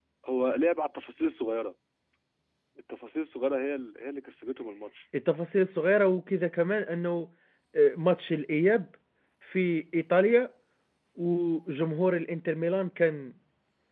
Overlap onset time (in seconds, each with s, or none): none